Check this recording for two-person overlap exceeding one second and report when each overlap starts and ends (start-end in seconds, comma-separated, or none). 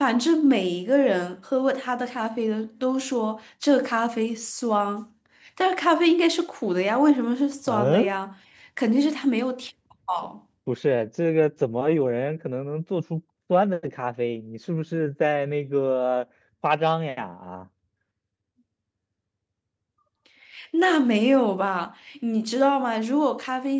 none